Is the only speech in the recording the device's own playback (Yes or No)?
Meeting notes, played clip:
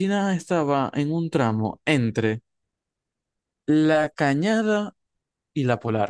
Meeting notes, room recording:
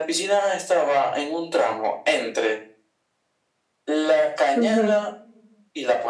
No